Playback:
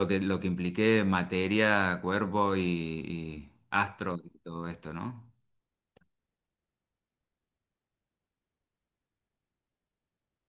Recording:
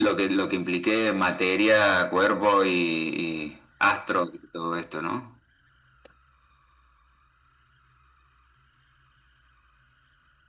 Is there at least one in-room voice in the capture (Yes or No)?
No